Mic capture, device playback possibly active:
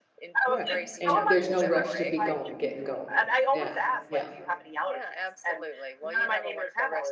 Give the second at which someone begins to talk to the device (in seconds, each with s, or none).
0.5 s